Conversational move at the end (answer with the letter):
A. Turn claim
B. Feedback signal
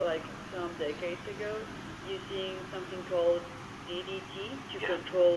A